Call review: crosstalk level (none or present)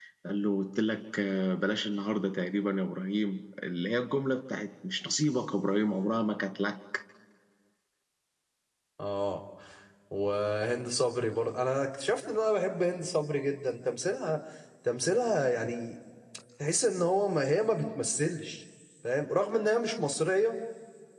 none